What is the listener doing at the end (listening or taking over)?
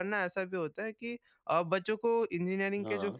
listening